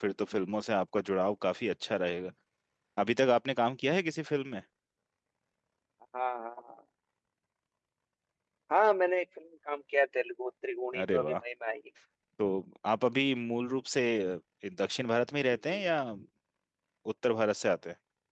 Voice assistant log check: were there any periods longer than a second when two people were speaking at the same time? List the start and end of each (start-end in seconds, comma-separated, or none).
none